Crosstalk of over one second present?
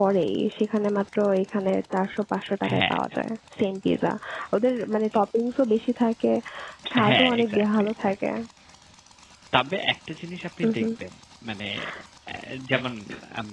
Yes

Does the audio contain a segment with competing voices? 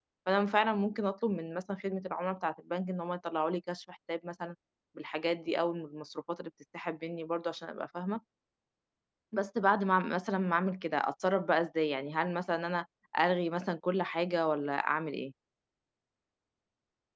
No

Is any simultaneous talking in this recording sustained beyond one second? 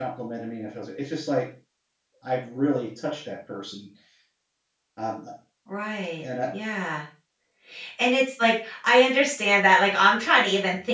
No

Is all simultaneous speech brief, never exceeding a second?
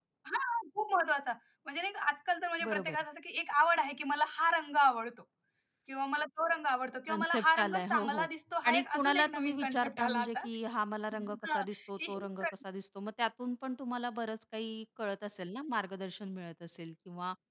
No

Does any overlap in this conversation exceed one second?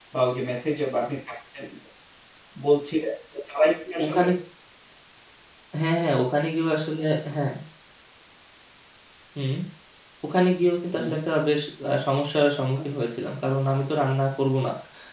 No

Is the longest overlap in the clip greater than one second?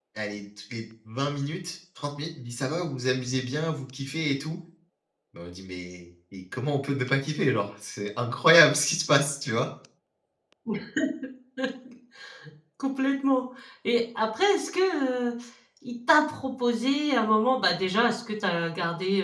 No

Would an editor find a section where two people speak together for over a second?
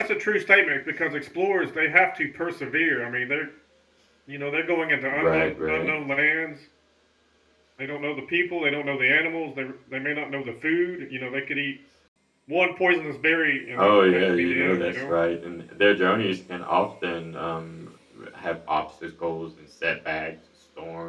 Yes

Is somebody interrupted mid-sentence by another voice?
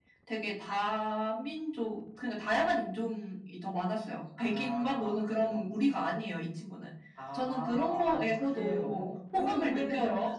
Yes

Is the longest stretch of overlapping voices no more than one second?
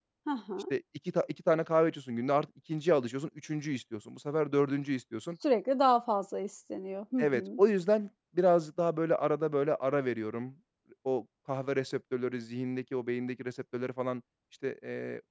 Yes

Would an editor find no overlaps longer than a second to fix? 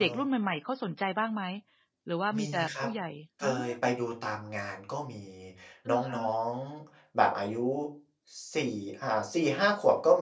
Yes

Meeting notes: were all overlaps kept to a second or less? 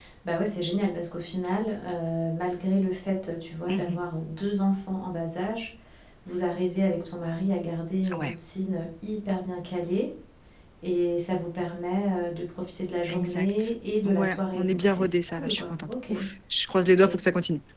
No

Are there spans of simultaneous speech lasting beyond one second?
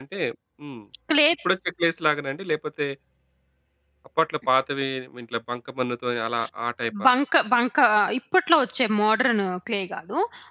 No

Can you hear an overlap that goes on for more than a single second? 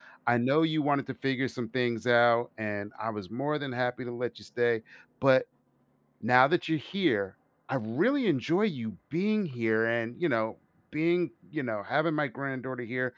No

